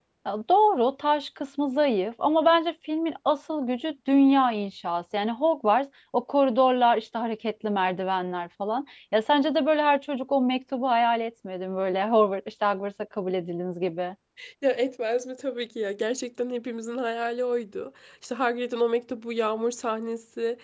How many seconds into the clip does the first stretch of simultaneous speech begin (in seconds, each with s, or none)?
none